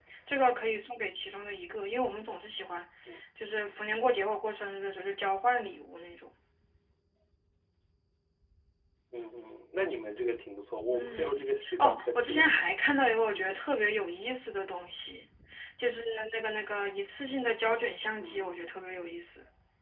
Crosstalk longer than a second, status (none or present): present